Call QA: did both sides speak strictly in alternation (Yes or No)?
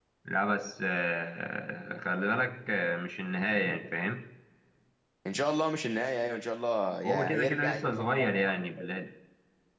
No